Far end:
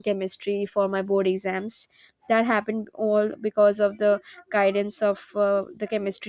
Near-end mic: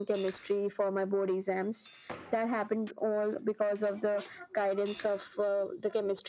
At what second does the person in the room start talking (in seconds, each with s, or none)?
none